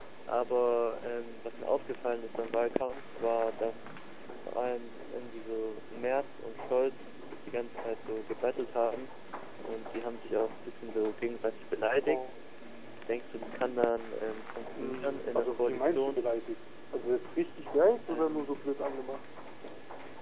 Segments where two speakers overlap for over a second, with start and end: 14.8-16.2

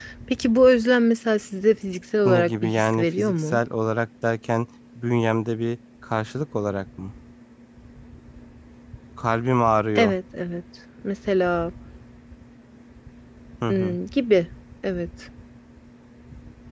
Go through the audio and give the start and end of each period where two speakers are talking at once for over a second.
2.2-3.6

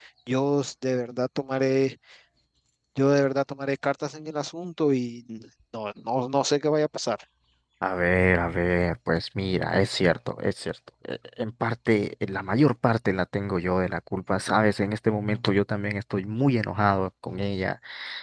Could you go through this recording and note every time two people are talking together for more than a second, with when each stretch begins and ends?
none

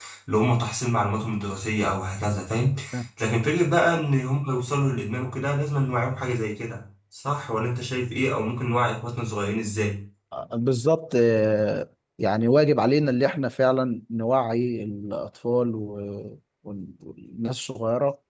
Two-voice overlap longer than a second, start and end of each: none

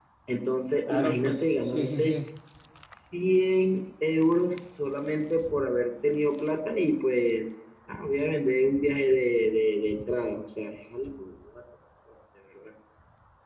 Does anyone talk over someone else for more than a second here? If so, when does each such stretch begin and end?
0.9-2.1

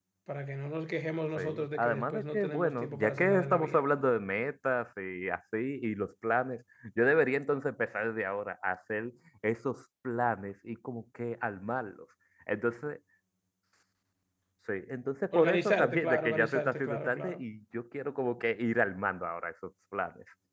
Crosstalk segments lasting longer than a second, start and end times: 1.4-3.8, 15.4-17.4

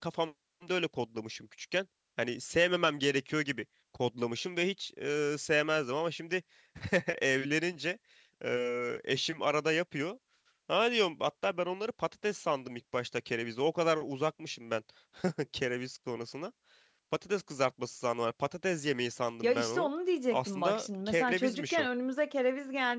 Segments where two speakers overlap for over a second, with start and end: 20.3-21.9

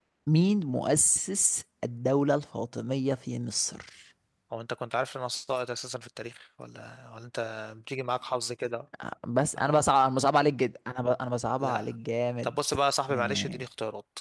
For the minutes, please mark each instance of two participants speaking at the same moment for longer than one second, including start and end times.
none

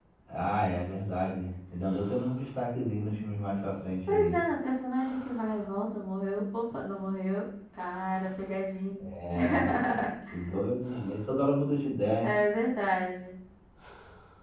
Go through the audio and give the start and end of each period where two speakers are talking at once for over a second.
none

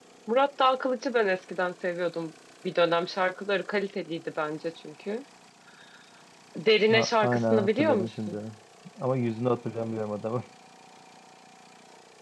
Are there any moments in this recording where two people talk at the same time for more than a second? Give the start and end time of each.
6.9-8.4

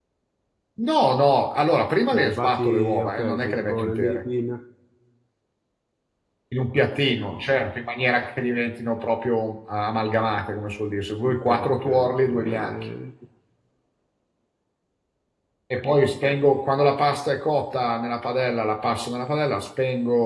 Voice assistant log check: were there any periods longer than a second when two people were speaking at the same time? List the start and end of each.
2.1-4.2, 11.3-12.8

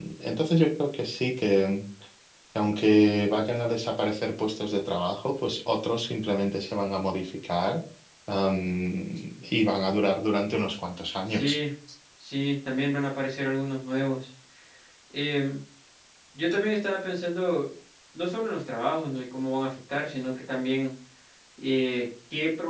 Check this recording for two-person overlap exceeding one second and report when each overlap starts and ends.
none

